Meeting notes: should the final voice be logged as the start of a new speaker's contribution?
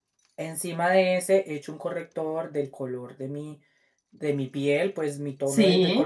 No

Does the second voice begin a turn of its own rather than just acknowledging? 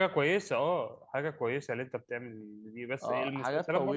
Yes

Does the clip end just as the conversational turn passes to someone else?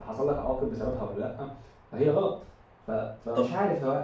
No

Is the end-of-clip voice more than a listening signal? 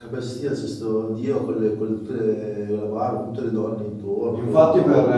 Yes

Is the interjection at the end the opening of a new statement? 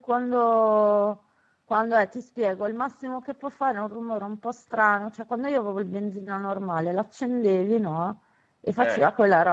No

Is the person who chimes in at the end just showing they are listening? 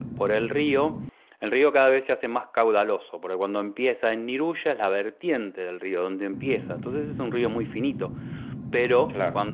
Yes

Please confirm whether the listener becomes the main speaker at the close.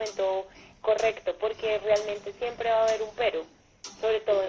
No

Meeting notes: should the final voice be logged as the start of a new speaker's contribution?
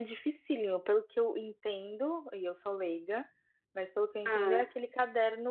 No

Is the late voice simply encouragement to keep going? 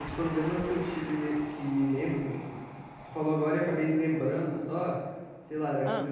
Yes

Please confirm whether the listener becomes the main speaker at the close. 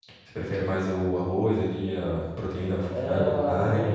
Yes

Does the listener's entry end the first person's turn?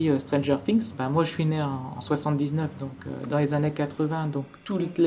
No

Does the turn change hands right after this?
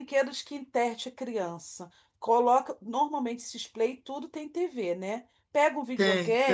No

